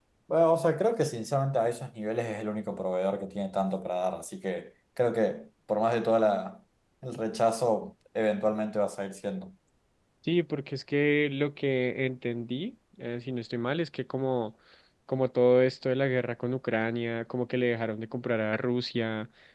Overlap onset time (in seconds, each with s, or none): none